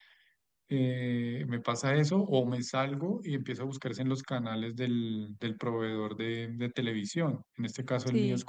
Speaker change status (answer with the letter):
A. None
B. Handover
A